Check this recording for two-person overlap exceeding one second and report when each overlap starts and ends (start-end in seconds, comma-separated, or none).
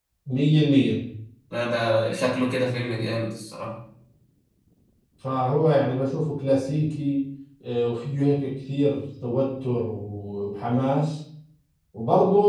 none